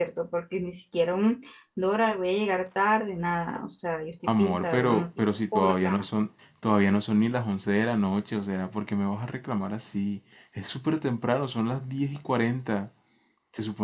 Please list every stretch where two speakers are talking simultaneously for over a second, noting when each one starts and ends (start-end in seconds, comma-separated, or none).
4.4-6.0